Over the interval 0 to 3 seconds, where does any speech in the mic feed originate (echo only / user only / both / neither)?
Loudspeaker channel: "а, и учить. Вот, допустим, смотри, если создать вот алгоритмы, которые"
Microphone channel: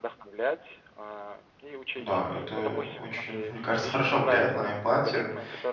both